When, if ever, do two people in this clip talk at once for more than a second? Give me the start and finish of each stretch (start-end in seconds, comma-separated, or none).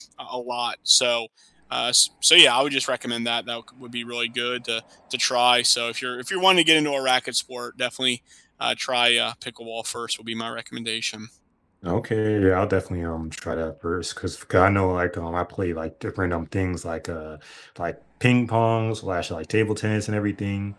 none